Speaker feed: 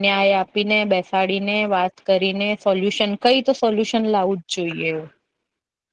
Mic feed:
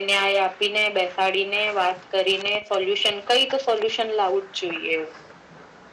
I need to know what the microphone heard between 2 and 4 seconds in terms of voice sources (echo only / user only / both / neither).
echo only